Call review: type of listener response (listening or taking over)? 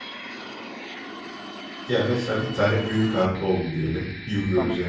listening